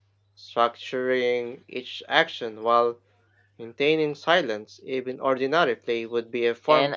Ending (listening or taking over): taking over